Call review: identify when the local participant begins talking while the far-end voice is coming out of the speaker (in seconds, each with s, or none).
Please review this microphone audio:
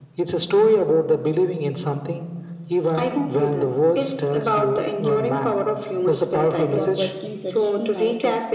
6.7 s